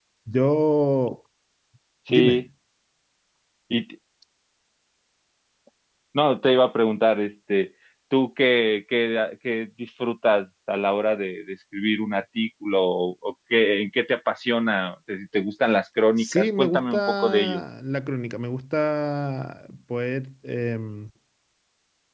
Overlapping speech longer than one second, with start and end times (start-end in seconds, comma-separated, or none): 16.2-17.6